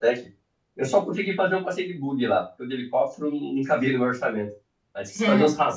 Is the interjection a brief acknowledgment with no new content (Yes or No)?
Yes